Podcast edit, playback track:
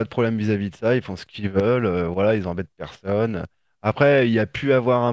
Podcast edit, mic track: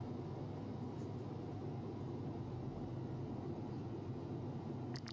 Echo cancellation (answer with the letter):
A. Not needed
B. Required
A